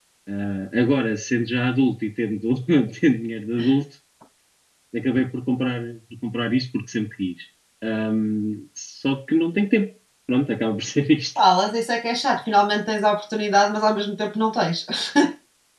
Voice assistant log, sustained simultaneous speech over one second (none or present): none